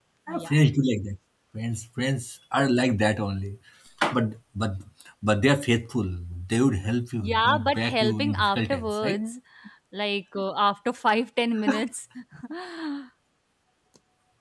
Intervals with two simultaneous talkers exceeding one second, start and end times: 7.2-9.2

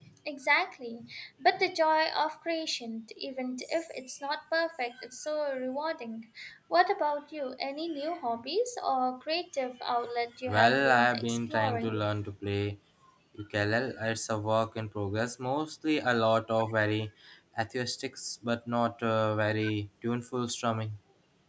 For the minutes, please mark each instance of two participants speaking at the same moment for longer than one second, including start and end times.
10.5-12.0

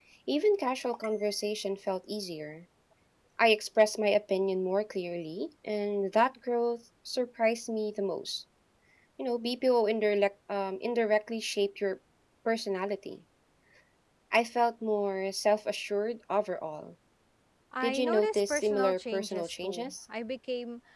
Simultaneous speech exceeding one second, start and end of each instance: 17.8-19.9

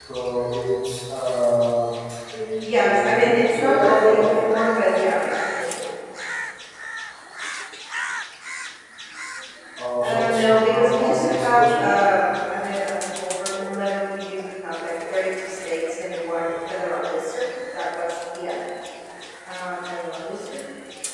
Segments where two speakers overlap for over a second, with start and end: 2.8-4.3, 10.0-12.0

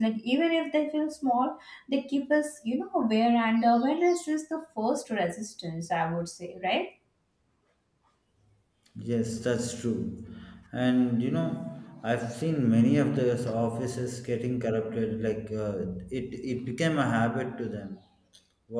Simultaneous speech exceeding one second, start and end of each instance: none

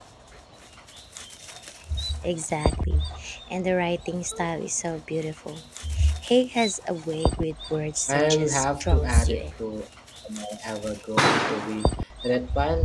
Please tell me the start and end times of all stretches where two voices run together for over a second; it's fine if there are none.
8.1-9.4

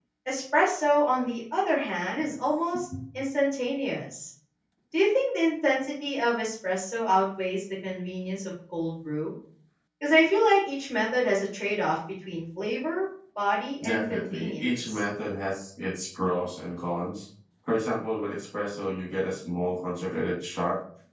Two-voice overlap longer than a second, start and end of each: 13.8-15.0

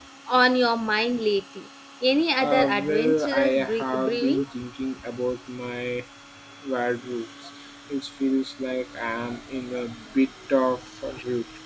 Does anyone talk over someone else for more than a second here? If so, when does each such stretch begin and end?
2.4-4.4

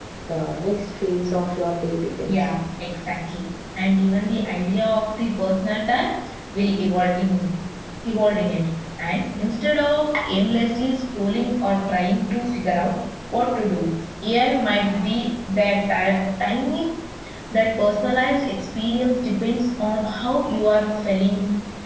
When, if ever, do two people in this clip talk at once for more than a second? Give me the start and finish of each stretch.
none

